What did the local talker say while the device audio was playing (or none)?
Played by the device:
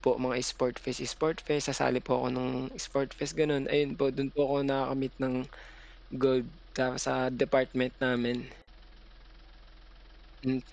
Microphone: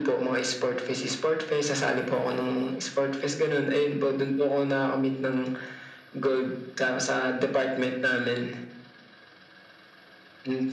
none